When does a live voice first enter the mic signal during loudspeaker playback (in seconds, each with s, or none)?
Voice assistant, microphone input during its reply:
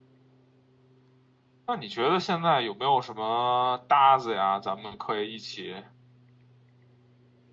1.6 s